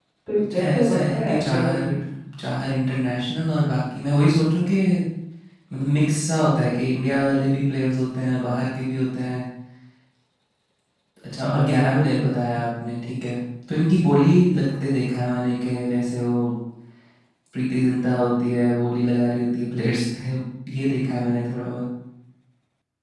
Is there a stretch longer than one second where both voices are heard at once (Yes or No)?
Yes